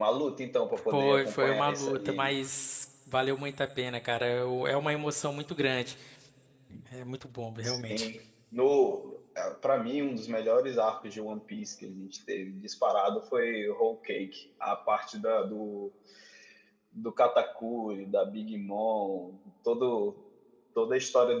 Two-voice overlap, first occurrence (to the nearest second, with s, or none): 1 s